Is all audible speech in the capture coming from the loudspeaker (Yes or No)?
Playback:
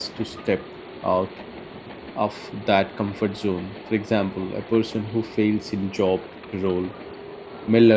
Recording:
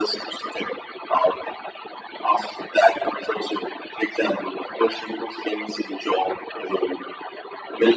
Yes